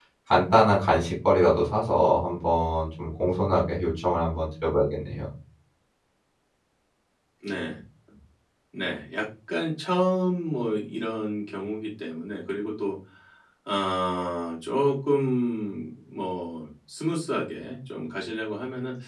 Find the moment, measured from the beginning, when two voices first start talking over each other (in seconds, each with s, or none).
none